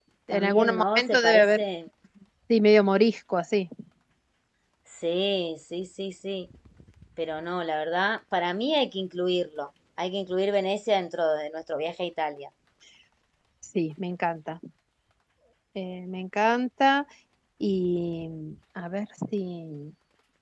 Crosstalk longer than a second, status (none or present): present